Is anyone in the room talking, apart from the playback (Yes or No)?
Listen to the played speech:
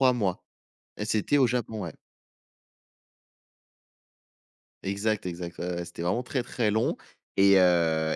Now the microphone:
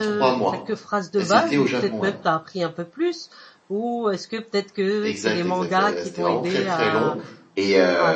Yes